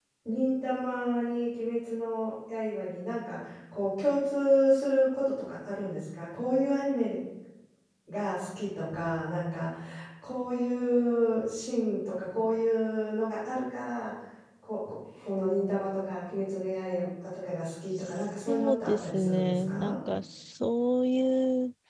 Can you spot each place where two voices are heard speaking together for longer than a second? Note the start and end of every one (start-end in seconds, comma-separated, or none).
18.1-20.0